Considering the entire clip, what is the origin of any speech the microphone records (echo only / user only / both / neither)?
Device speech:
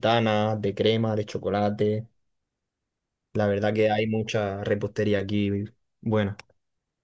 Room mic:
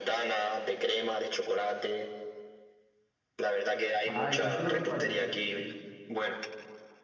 both